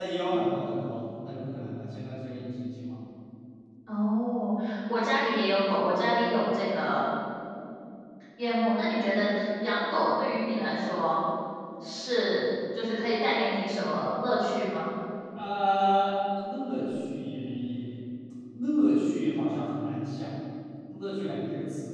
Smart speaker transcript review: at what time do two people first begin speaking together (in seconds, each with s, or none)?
none